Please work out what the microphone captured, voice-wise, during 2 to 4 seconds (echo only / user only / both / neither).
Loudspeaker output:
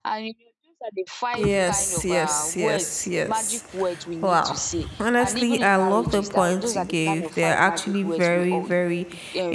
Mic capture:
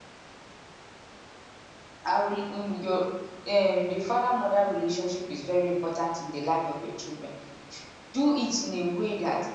user only